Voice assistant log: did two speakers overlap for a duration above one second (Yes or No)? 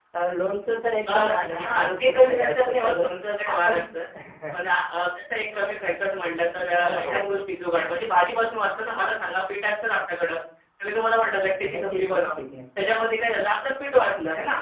Yes